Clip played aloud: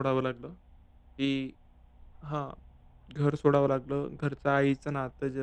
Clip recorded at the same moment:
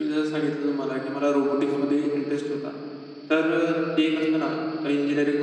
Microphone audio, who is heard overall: user only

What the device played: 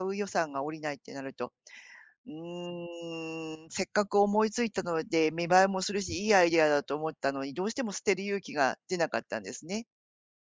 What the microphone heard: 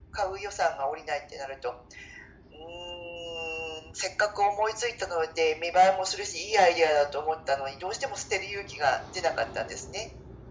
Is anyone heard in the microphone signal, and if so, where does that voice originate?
echo only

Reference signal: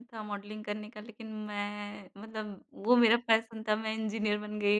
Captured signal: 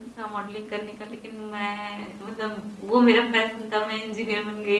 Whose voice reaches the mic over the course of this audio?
echo only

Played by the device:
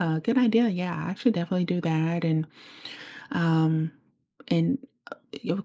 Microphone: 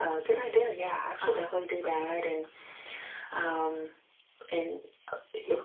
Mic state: both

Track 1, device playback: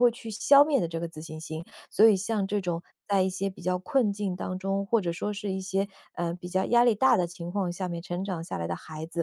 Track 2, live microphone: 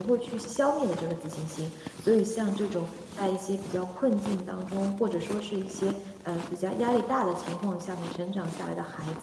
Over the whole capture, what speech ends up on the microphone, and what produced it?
echo only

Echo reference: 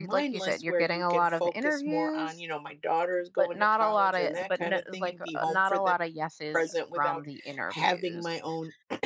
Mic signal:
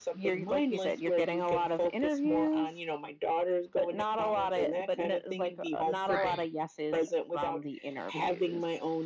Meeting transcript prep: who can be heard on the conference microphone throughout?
both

